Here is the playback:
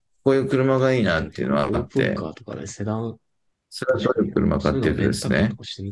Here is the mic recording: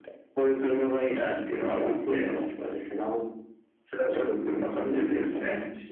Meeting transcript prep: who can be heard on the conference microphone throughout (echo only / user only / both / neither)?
echo only